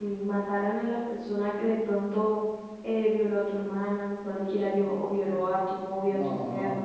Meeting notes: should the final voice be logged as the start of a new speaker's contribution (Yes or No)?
Yes